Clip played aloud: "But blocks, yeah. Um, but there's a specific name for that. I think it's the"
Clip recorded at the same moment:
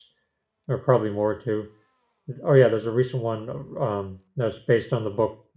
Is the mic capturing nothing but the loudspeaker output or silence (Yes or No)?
No